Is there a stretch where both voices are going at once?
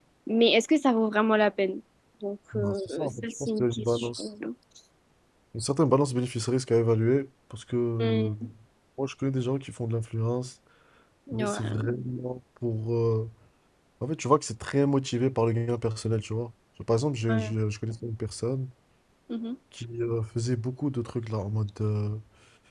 Yes, from 2.5 s

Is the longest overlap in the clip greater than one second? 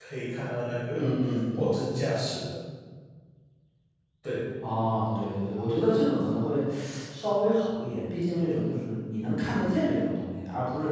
No

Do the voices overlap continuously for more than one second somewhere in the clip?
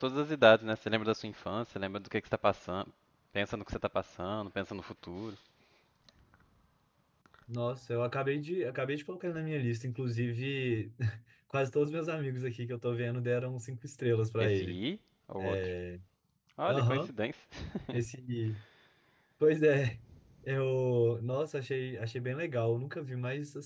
No

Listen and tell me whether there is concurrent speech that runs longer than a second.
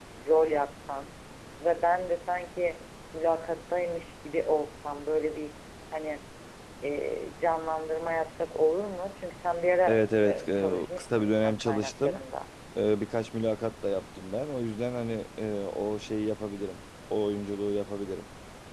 Yes, from 9.9 s

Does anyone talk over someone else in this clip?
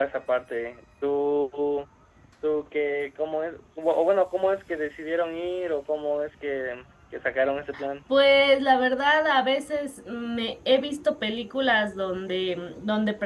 No

